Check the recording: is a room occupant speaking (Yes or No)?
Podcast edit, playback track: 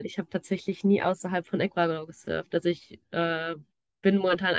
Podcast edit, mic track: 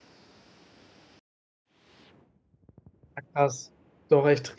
Yes